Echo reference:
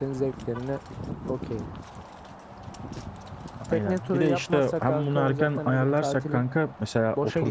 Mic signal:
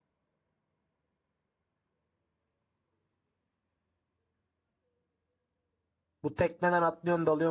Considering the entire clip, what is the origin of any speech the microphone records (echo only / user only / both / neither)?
user only